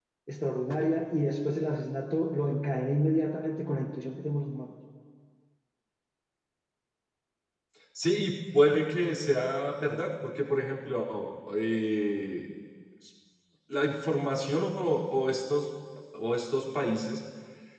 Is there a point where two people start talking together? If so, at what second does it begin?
none

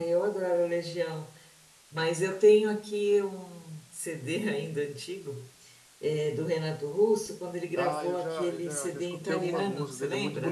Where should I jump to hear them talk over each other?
7.8 s

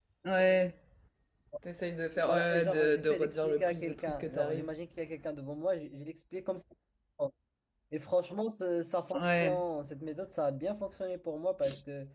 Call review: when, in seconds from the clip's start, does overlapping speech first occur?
2.2 s

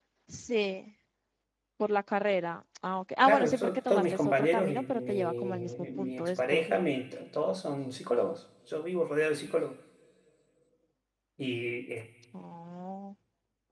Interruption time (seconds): 3.2 s

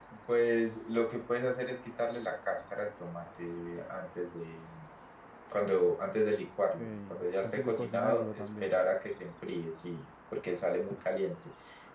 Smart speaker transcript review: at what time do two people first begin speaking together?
6.8 s

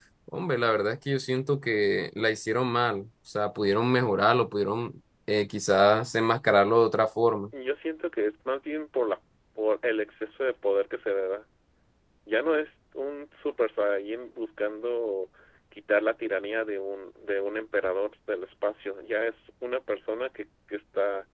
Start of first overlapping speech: none

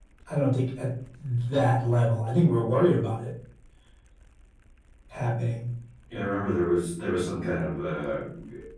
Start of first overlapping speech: none

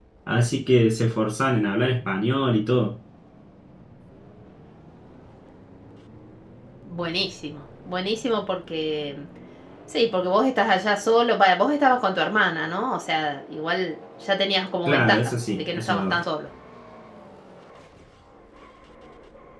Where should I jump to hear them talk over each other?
14.9 s

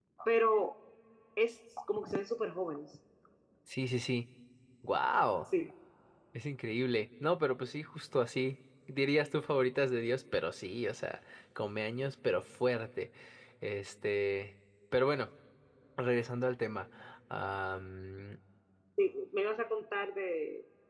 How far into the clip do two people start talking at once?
none

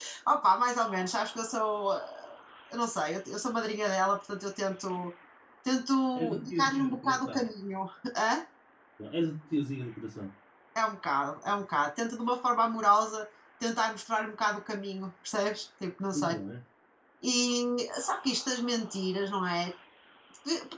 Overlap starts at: 6.2 s

